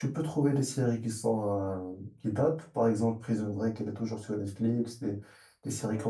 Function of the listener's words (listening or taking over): listening